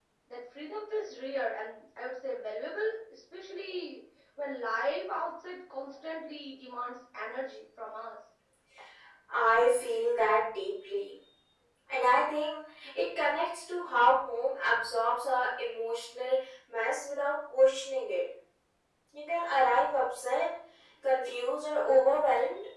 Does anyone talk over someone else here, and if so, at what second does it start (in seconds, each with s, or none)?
none